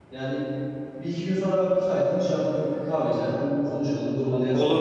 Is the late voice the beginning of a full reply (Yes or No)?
No